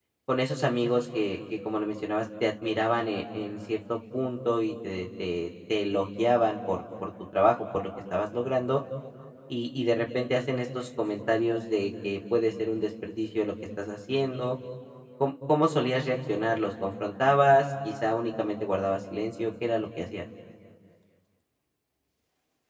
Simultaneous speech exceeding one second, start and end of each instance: none

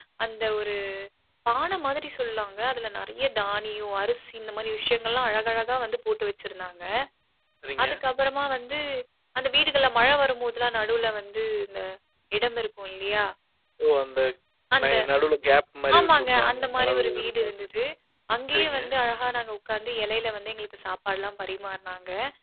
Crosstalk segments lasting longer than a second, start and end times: 16.0-17.7

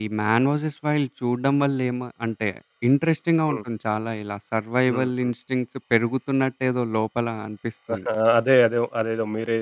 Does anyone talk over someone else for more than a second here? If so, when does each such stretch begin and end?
none

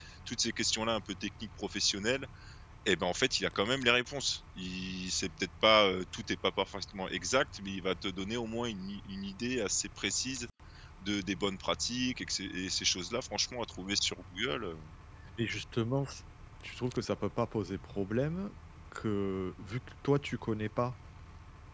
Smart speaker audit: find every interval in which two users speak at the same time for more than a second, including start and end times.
none

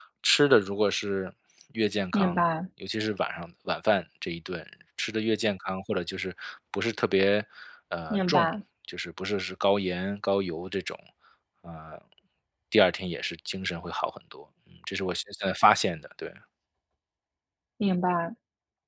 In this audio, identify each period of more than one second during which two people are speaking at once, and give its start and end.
none

